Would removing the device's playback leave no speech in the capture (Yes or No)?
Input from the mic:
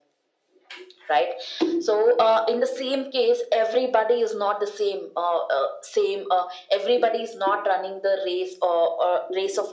Yes